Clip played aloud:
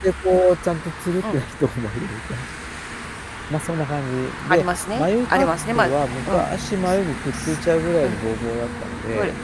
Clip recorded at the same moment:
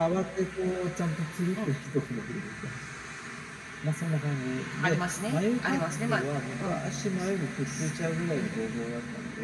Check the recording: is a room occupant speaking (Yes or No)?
No